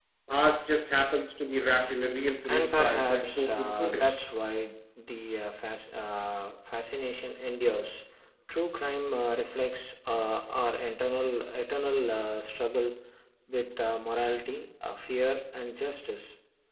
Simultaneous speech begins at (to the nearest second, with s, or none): 2 s